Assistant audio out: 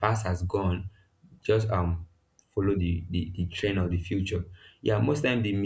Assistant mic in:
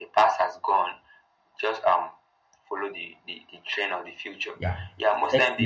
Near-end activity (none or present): present